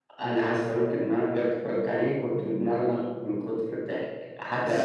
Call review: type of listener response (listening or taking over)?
listening